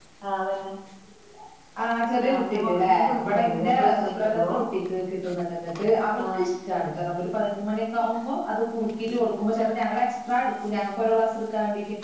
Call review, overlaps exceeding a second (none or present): present